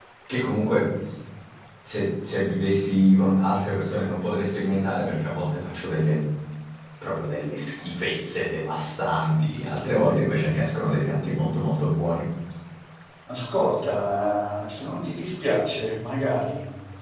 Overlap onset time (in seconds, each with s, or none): none